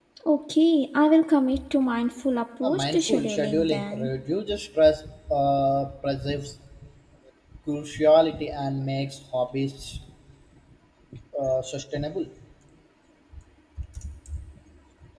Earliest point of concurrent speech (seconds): 2.6 s

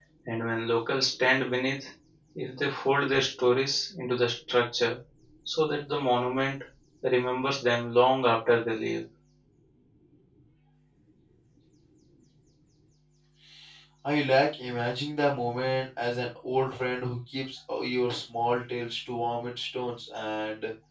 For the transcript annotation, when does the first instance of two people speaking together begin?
none

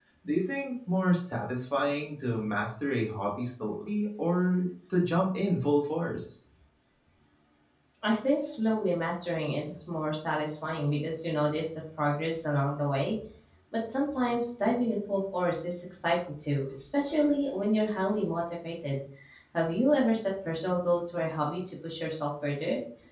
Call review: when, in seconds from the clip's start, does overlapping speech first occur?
none

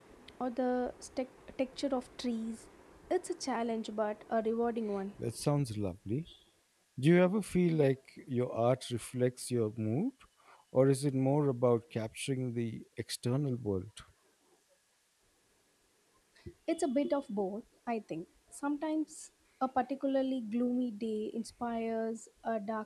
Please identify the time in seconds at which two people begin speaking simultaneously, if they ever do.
none

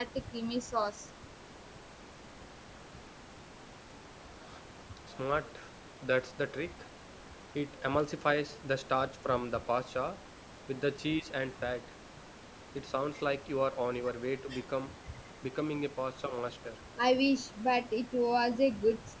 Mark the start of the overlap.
none

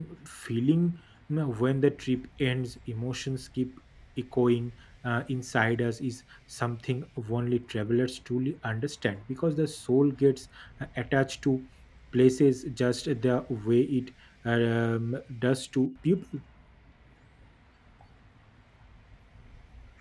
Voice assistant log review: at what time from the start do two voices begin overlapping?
none

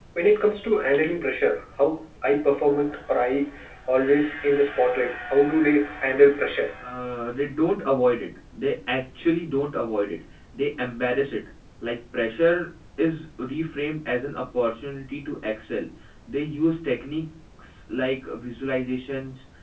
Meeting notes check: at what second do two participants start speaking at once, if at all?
none

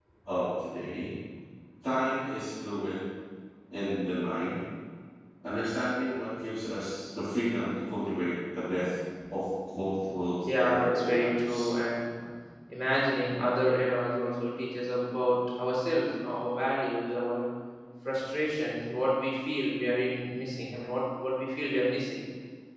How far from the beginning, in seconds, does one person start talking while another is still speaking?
10.4 s

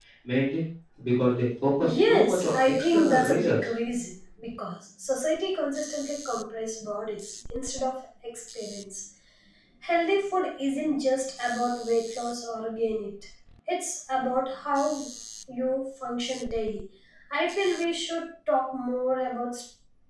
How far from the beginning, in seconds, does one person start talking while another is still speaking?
1.8 s

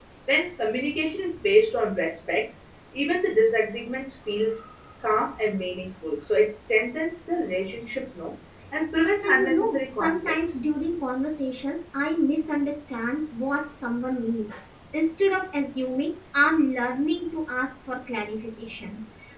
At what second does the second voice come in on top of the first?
9.2 s

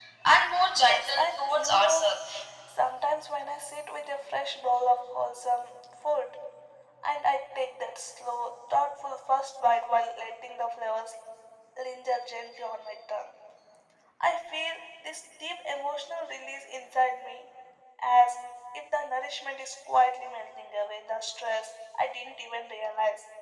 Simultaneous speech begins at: 0.8 s

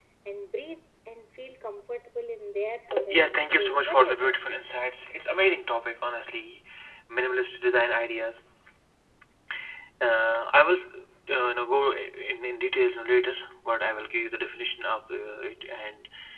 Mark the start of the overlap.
2.9 s

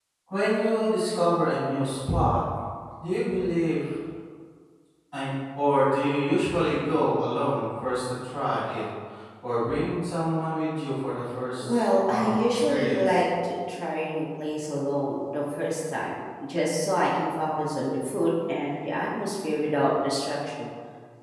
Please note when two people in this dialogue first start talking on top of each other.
11.6 s

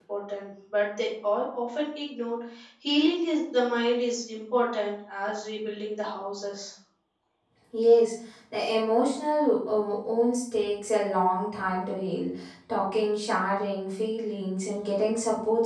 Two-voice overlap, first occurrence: none

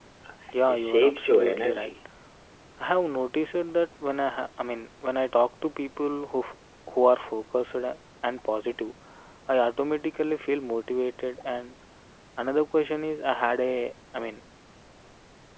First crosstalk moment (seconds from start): 0.7 s

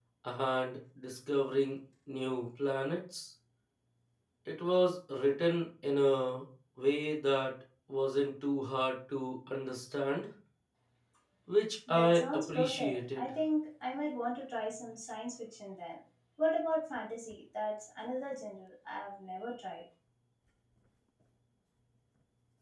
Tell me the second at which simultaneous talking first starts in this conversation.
11.9 s

